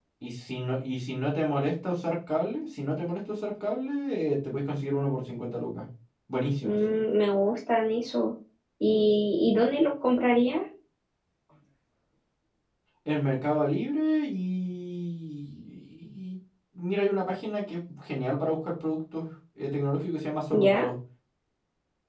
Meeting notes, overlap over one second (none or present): none